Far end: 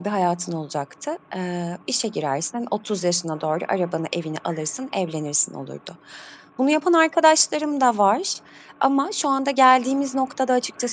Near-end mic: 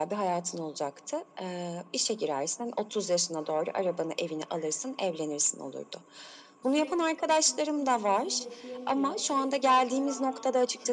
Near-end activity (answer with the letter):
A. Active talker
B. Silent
A